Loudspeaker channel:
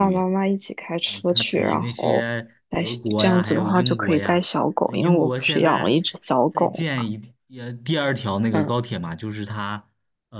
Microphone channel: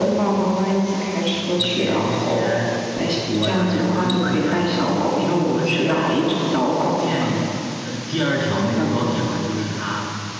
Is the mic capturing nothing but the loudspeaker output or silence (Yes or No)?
Yes